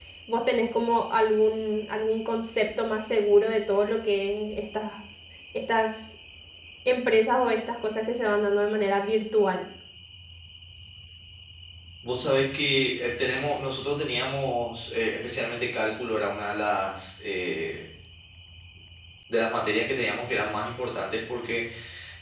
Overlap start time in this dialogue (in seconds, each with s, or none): none